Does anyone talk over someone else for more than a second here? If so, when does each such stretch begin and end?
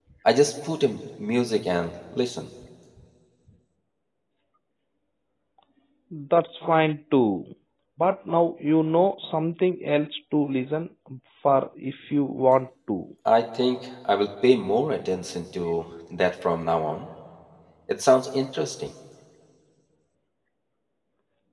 none

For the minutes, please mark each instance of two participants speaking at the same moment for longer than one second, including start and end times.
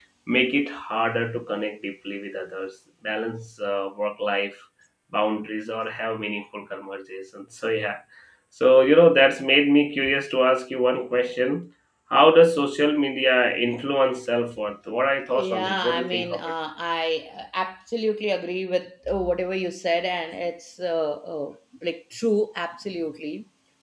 15.3-16.5

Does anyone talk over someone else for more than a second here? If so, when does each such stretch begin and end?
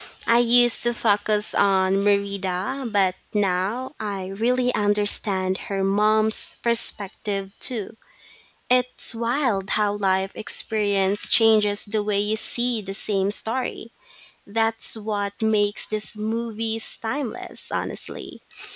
none

